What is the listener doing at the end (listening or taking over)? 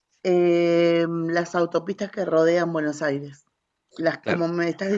listening